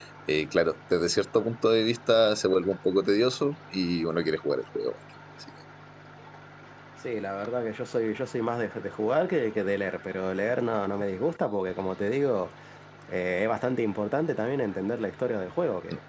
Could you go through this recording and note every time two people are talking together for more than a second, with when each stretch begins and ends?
none

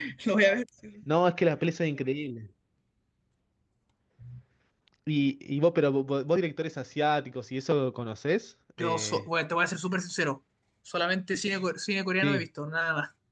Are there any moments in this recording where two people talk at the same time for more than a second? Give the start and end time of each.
none

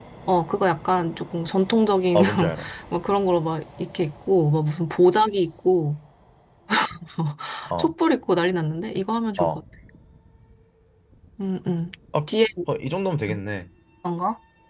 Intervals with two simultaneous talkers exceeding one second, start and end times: none

